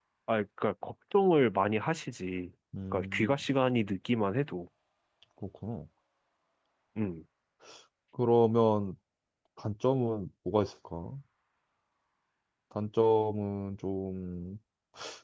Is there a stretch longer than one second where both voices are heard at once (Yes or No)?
No